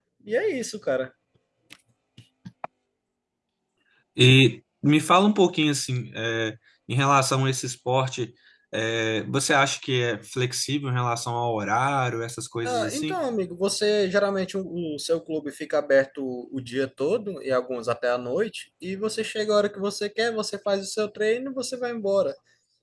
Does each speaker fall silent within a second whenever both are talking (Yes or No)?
Yes